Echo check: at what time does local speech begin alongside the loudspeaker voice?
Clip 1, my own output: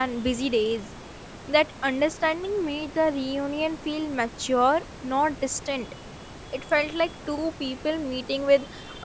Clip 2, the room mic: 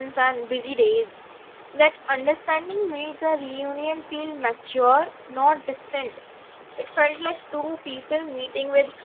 none

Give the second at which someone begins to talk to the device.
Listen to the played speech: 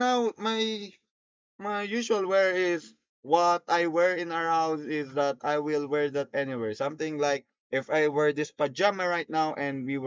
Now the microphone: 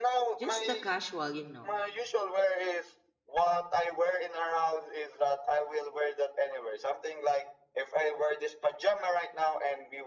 0.3 s

